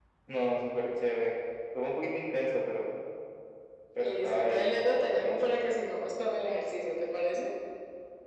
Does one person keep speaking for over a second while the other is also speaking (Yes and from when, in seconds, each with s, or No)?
Yes, from 4.0 s